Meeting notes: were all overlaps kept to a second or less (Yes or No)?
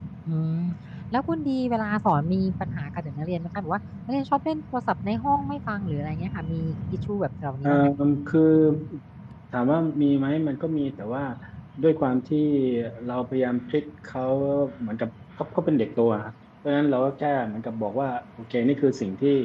Yes